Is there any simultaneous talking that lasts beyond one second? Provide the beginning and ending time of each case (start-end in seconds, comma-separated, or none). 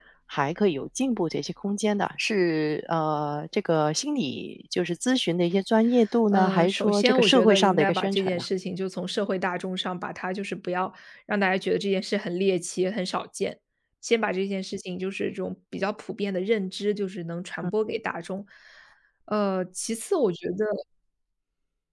6.3-8.4